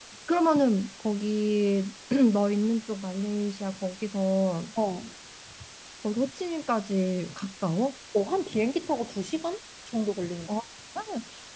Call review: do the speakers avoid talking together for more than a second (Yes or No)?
Yes